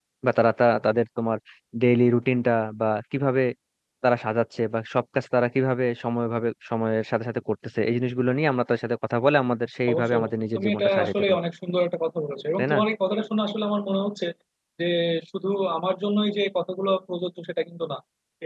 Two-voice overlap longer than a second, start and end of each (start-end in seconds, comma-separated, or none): 9.9-11.4